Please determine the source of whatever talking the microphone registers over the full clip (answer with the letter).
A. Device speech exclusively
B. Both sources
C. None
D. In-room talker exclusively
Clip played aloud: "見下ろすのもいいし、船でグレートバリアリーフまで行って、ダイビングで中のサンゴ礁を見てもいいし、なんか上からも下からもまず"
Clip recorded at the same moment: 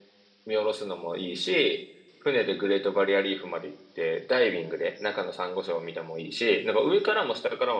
A